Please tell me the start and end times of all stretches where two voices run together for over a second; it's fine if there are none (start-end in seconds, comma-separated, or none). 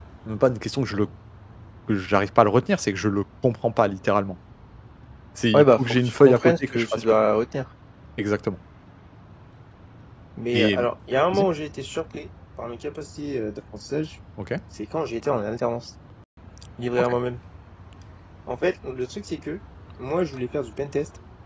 5.5-7.1